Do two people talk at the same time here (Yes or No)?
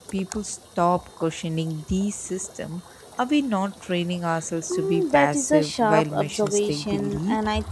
Yes